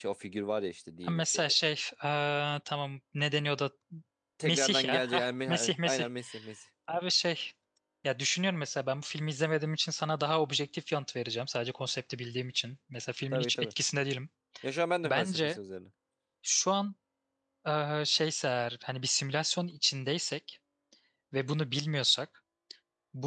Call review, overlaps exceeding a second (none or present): present